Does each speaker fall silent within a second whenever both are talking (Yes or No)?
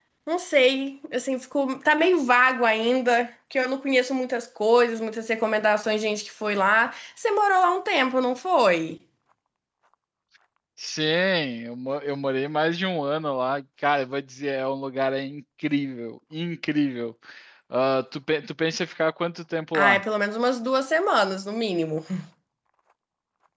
Yes